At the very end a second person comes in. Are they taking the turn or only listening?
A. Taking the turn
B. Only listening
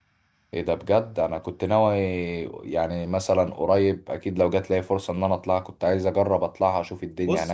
A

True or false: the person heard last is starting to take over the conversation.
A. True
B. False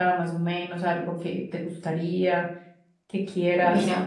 A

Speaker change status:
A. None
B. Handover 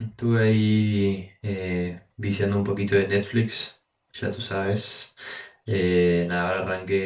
A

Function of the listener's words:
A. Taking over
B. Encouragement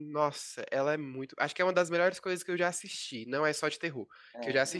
B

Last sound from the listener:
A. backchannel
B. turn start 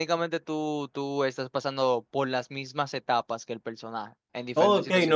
B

